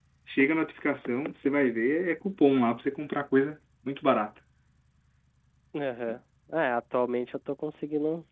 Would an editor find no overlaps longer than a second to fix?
Yes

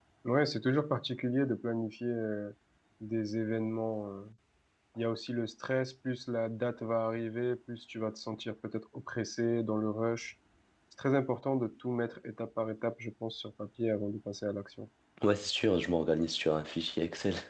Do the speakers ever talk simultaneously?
No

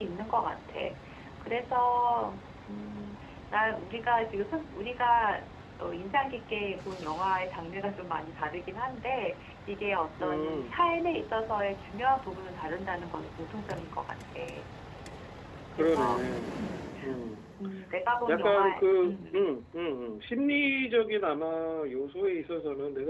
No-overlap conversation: No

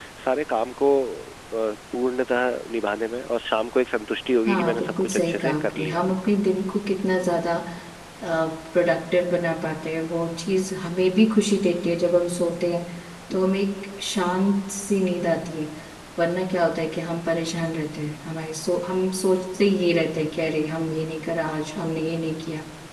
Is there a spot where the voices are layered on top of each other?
Yes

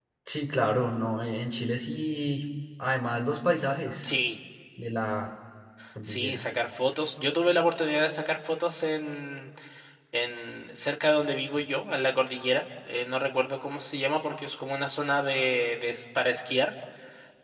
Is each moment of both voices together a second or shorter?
Yes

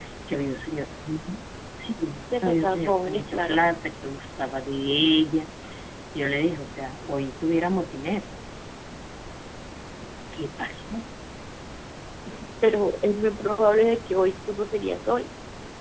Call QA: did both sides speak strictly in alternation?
No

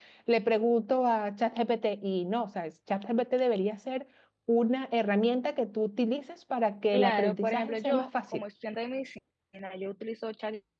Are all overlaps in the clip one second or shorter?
No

